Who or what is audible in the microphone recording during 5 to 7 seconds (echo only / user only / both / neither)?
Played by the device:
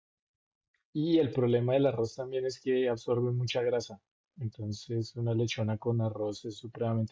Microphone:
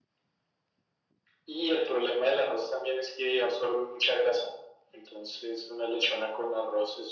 echo only